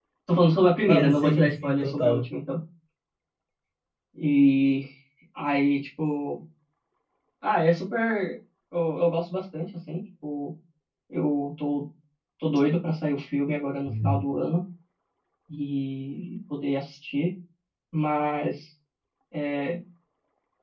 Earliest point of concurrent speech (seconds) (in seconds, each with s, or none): 0.9 s